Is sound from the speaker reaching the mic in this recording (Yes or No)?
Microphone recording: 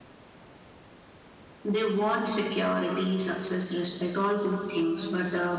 No